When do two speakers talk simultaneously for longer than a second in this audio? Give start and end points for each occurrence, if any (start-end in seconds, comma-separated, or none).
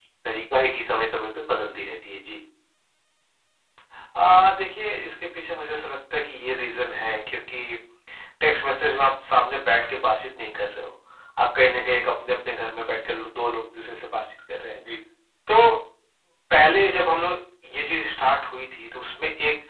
none